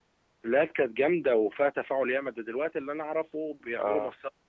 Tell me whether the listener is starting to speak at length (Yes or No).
No